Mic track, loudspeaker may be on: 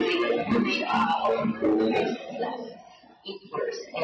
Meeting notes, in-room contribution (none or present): none